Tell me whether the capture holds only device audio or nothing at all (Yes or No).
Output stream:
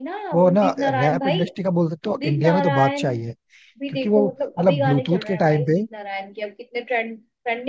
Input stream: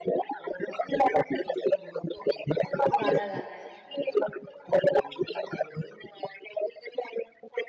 No